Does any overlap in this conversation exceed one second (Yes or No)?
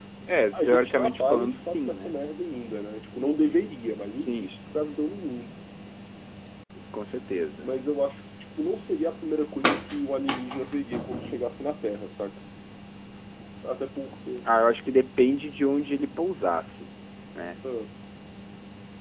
Yes